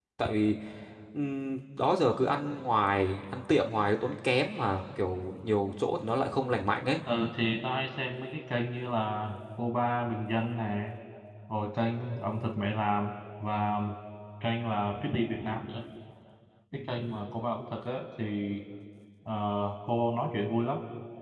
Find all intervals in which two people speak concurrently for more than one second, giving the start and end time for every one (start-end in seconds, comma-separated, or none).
none